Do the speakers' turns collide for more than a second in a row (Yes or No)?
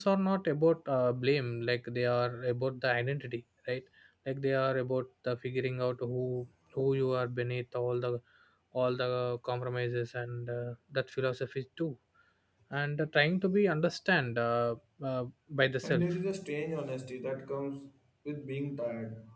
No